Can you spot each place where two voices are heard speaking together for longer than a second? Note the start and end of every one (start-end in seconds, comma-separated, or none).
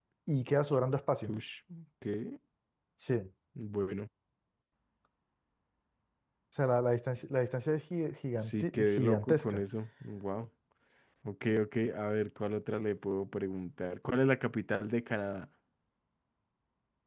8.4-9.6